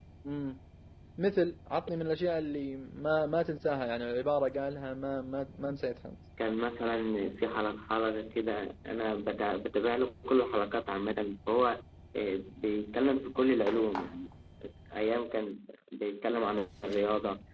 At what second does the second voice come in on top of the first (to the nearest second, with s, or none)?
none